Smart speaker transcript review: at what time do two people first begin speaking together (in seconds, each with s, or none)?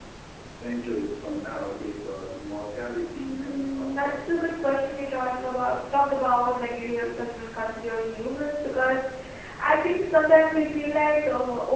3.1 s